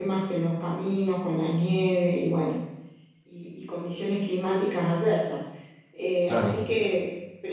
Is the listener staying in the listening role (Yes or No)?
Yes